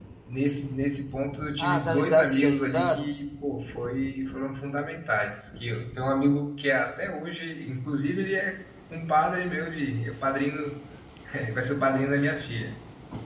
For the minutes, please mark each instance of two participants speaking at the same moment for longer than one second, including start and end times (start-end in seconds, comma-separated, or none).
1.6-3.1